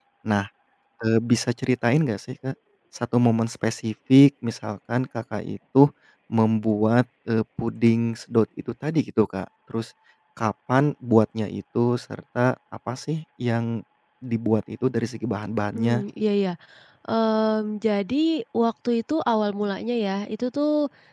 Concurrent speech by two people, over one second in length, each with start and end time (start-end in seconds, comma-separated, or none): none